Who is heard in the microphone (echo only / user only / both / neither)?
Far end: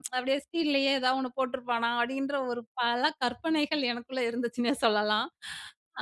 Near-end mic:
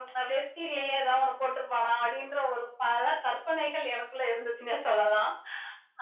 echo only